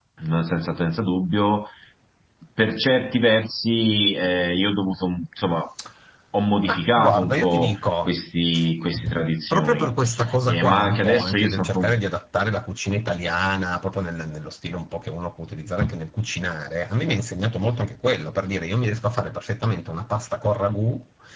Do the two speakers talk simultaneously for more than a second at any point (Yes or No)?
Yes